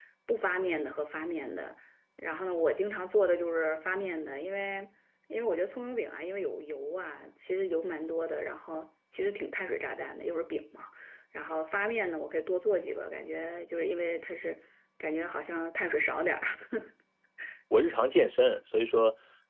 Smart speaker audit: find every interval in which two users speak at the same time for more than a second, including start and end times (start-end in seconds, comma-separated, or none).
none